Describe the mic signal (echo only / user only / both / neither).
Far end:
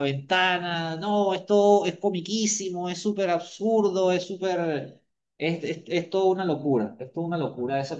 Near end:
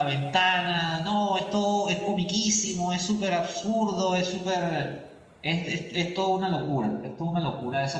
echo only